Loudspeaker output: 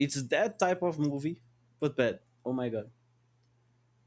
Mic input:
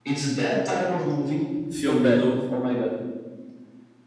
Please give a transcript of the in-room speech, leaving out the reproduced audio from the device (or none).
film, you know?